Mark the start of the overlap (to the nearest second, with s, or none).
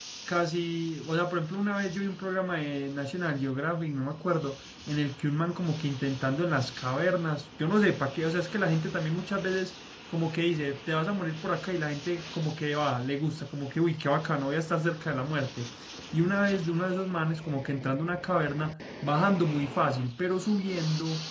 none